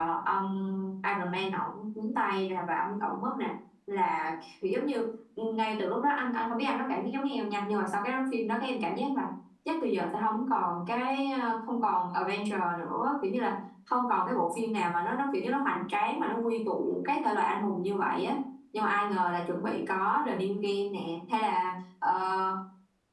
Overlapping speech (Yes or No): No